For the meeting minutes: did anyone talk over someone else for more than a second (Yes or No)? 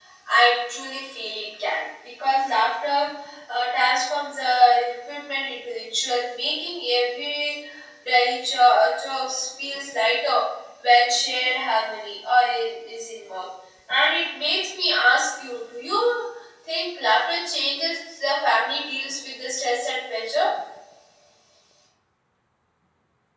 No